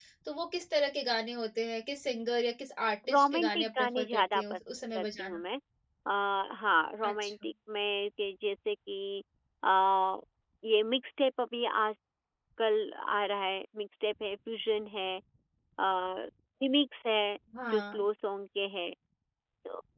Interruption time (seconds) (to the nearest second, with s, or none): 3 s